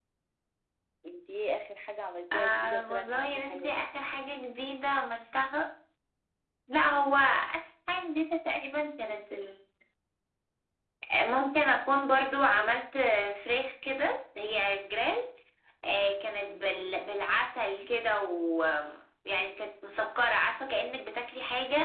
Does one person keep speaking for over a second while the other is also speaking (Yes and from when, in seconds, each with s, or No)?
Yes, from 2.3 s